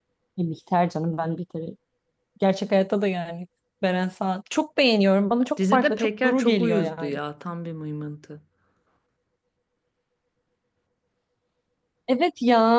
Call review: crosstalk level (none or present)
present